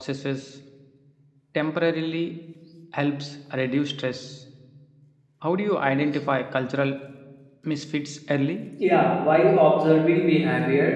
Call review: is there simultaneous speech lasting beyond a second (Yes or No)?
No